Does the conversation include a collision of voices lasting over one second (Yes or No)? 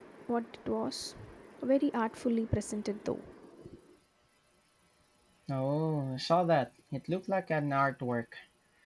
No